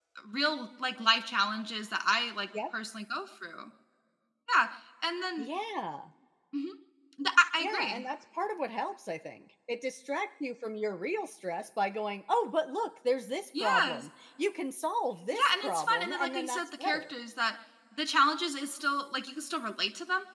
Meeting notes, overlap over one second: present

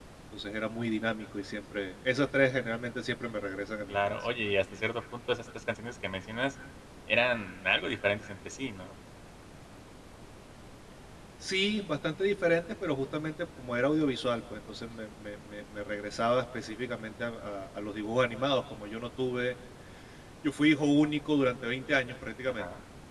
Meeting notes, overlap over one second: none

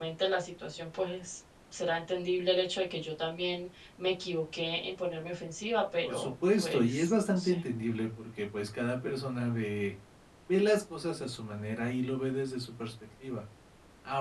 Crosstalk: present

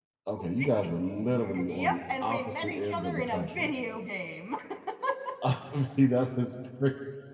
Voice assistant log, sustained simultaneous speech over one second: present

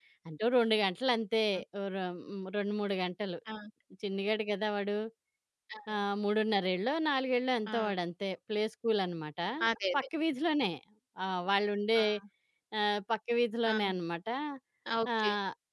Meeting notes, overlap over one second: none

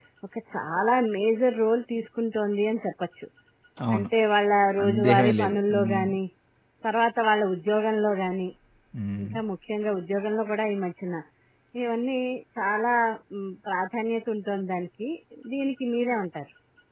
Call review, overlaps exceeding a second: present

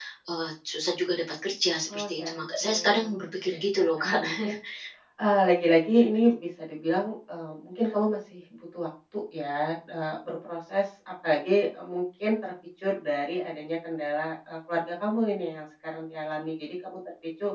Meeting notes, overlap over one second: present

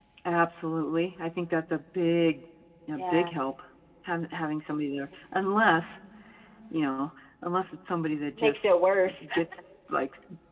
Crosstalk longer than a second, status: none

